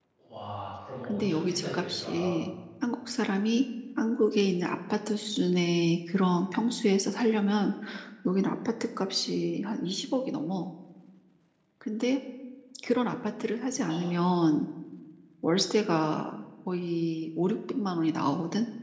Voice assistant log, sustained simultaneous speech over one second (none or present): present